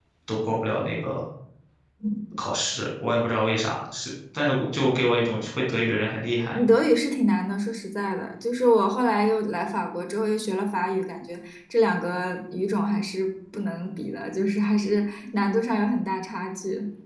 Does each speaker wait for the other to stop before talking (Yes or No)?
Yes